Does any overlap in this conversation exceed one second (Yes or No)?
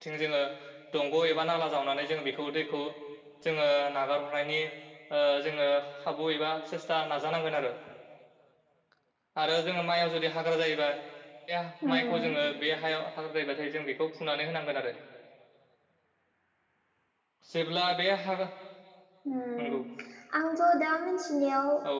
No